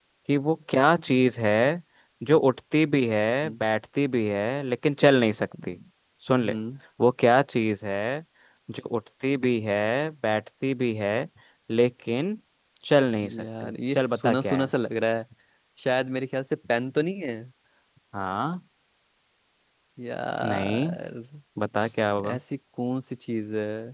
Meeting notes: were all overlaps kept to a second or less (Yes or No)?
No